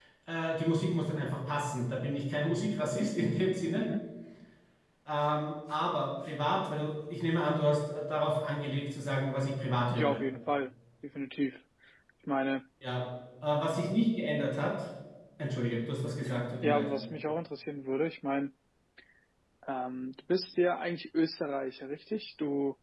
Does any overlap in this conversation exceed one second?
No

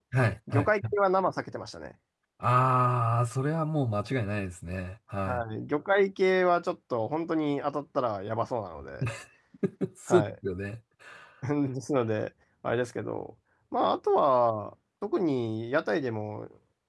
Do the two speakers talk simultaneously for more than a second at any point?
No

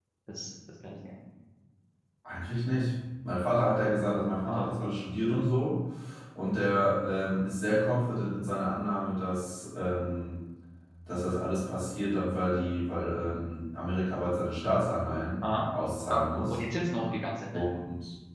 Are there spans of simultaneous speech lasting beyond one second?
No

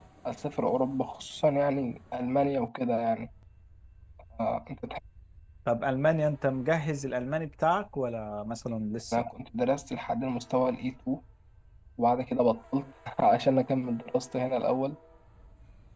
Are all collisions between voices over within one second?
Yes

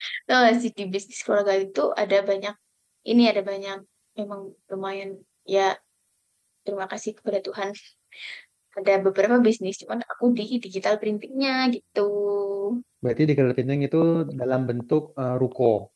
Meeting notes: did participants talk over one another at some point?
No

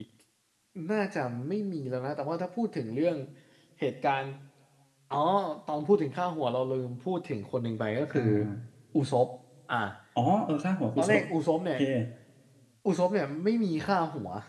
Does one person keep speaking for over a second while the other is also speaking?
No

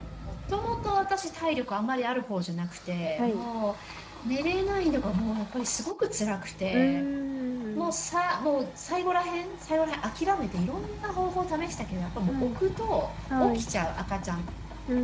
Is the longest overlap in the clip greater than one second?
No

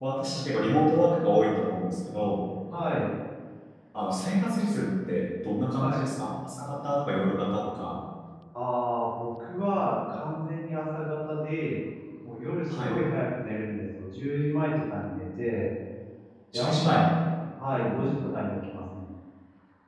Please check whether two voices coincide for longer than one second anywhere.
No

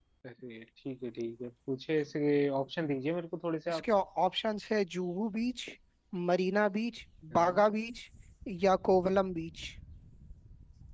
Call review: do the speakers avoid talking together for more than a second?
Yes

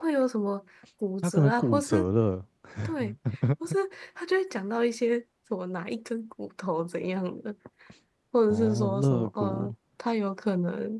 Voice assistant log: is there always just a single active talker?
No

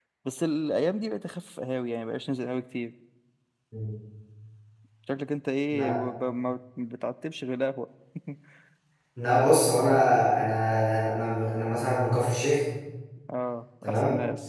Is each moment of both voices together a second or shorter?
Yes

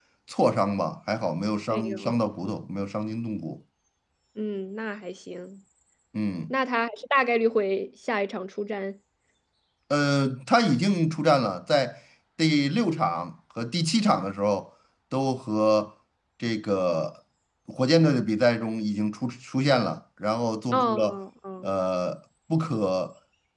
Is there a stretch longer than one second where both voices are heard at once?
No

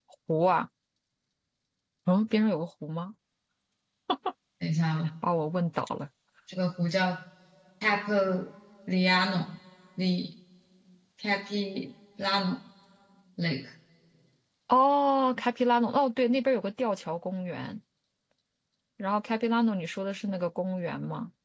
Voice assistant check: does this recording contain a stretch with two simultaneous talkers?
No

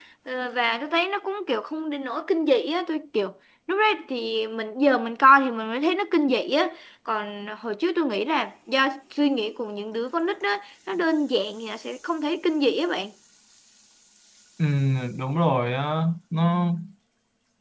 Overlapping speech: No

